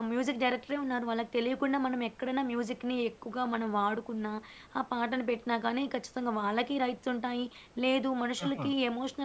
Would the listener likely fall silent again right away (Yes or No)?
Yes